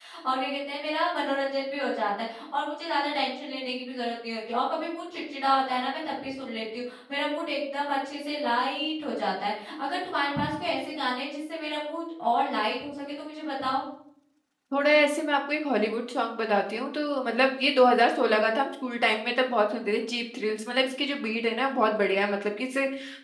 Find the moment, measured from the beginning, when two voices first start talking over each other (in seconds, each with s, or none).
none